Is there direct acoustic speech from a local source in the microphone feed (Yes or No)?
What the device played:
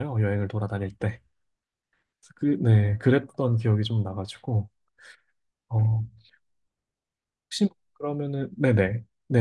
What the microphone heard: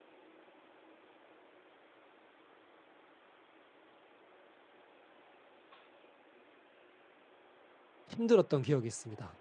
Yes